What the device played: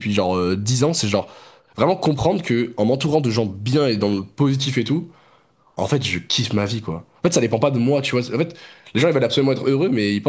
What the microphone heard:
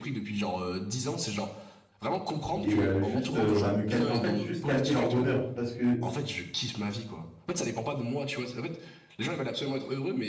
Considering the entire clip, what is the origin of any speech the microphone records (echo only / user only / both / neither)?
both